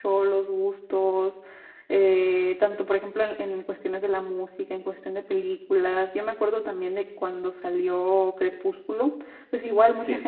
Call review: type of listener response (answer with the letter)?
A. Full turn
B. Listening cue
B